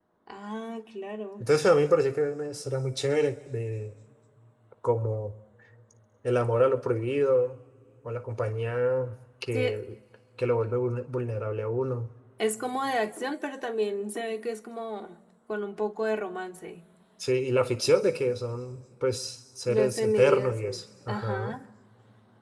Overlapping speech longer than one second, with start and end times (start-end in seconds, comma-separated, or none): 19.6-21.6